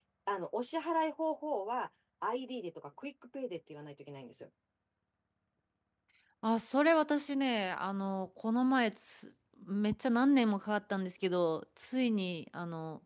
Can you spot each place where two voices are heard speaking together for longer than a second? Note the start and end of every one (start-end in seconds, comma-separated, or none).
none